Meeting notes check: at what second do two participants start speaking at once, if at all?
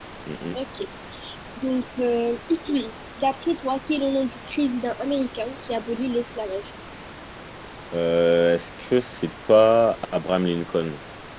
none

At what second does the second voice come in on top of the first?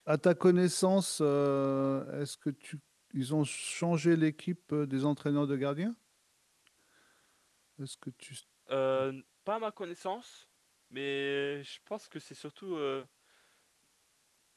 none

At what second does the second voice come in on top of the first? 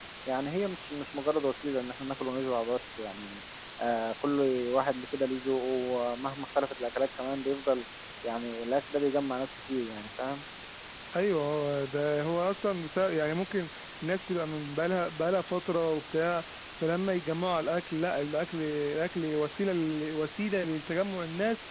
none

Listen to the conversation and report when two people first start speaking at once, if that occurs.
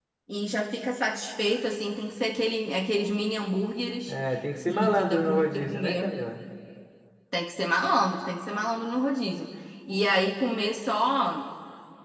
4.7 s

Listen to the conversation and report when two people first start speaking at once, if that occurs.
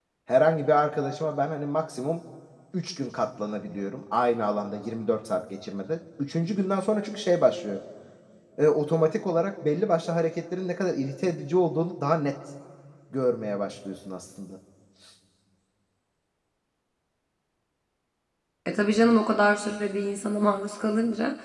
none

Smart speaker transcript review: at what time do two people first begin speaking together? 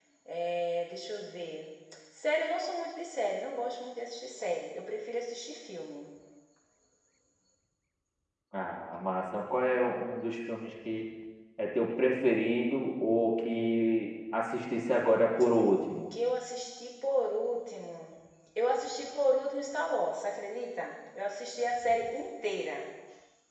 none

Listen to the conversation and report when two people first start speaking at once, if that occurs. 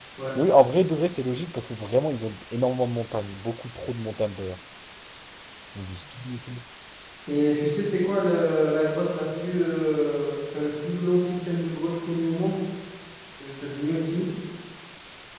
none

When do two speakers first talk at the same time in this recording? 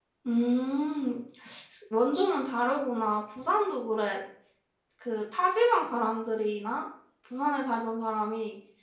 none

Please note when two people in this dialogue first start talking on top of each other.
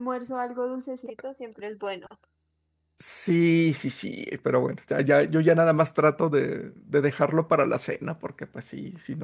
none

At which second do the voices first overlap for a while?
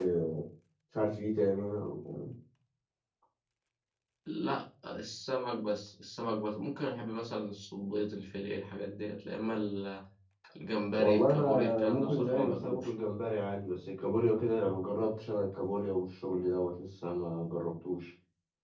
10.9 s

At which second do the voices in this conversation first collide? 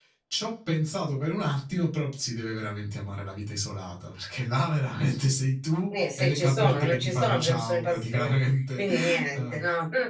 5.9 s

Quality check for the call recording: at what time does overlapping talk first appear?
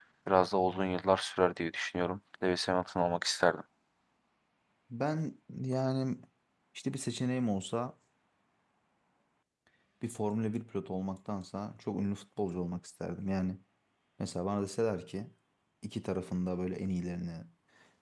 none

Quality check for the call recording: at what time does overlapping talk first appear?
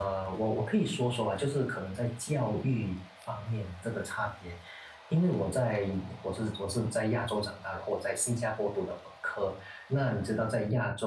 none

